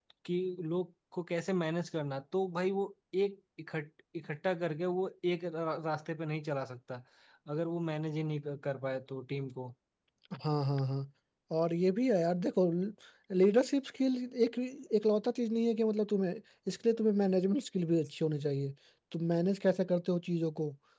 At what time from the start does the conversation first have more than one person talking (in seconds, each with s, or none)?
none